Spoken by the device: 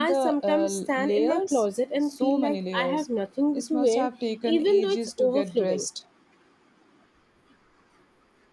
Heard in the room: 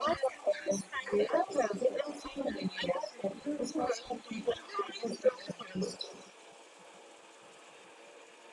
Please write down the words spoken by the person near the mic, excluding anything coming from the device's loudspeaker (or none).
none